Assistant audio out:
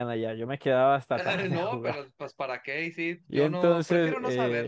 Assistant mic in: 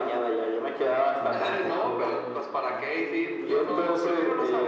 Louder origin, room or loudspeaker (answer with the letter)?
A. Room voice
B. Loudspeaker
B